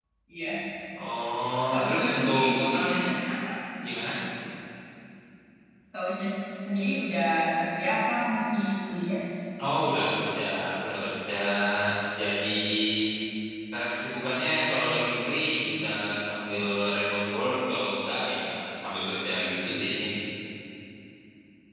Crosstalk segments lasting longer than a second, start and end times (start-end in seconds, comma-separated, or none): 1.7-3.1